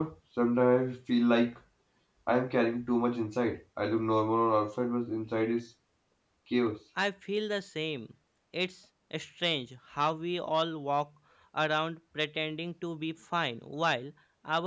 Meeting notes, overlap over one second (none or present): none